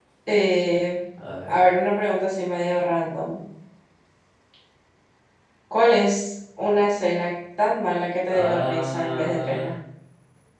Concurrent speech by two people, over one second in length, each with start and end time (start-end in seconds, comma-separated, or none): 8.3-9.7